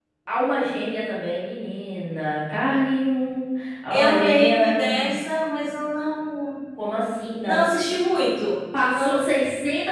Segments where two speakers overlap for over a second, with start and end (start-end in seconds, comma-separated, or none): 3.9-5.1